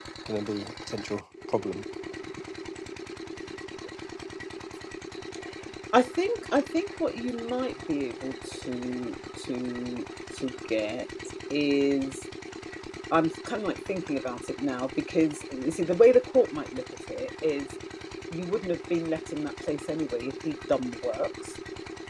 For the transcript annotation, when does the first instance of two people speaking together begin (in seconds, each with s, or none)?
none